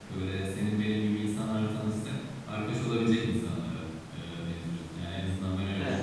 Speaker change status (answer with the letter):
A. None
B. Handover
A